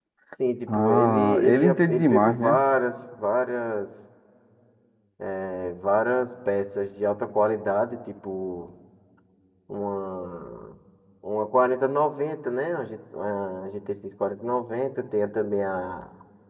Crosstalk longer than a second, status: present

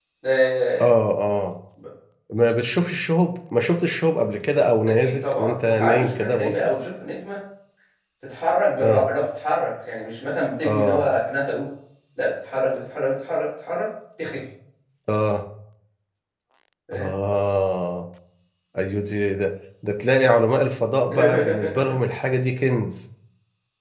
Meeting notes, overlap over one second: present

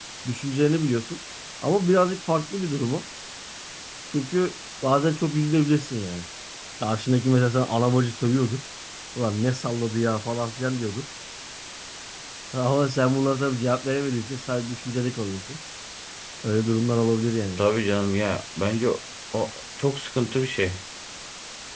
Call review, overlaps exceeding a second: none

